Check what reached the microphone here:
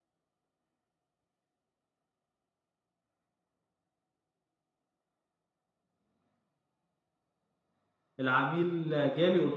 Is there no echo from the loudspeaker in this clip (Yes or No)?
Yes